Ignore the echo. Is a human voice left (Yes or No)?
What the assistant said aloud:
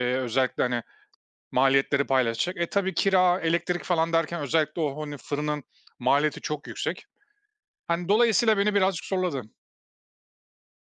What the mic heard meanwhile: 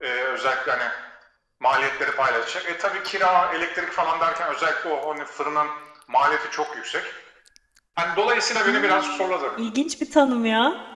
Yes